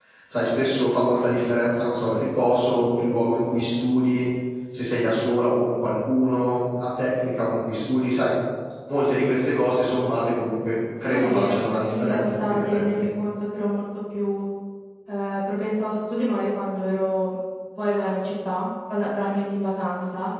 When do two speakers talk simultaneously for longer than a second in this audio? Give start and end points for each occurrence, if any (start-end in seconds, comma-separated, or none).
11.1-13.1